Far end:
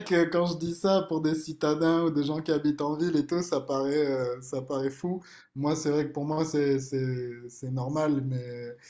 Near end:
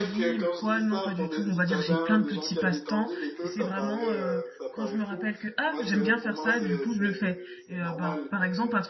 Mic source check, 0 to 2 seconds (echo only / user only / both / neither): both